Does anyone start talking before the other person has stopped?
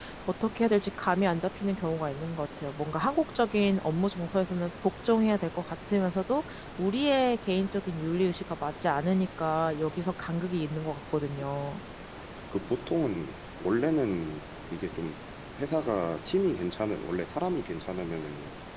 No

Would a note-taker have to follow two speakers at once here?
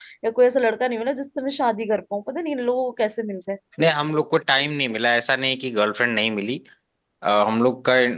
No

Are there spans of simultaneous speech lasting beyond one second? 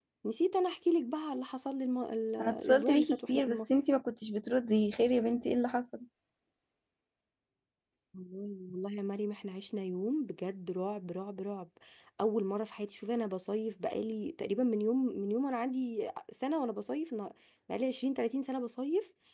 Yes, from 2.4 s

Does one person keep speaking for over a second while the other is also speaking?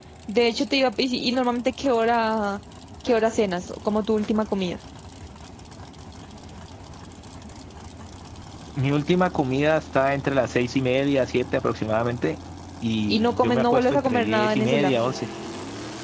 Yes, from 13.1 s

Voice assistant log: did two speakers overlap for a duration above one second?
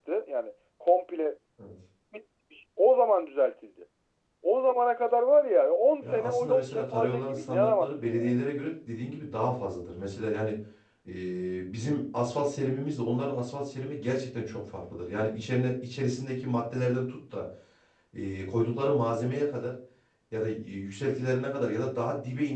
Yes, from 6.0 s

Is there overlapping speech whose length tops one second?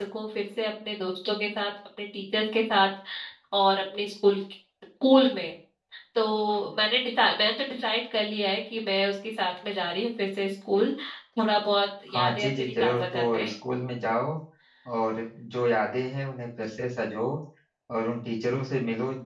Yes, from 12.1 s

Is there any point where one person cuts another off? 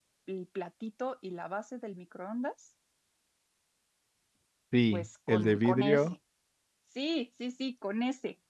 Yes, from 4.9 s

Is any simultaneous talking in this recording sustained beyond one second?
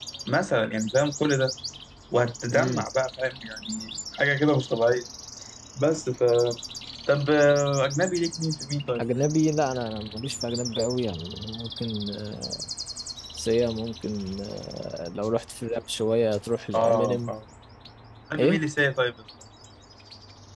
No

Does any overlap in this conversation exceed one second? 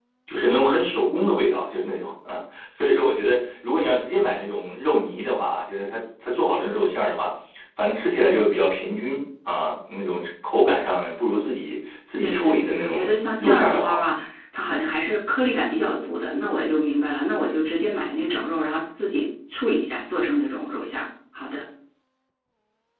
Yes, from 12.2 s

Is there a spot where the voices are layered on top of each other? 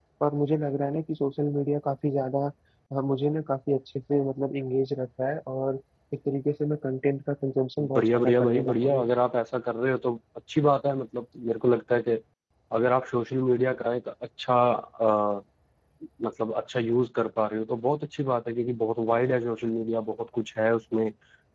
Yes, from 7.8 s

